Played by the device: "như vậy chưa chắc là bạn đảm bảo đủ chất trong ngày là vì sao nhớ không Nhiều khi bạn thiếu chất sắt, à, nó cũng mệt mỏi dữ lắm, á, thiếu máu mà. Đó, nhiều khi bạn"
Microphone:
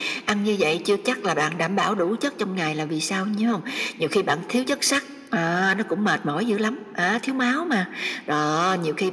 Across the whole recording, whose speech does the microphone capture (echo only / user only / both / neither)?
echo only